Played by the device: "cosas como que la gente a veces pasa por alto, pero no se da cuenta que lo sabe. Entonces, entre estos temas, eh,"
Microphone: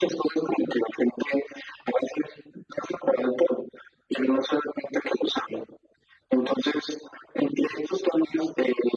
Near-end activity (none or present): none